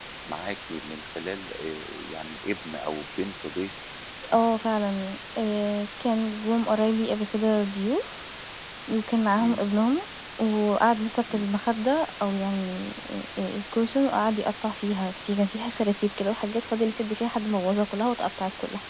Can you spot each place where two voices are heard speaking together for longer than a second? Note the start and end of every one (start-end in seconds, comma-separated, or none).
none